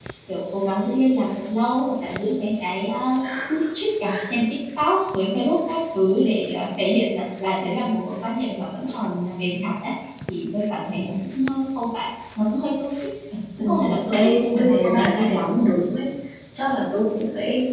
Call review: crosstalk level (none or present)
present